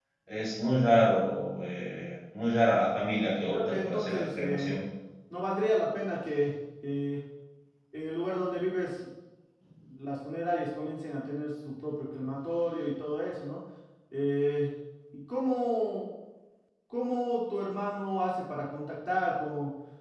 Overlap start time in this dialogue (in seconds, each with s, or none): 3.5 s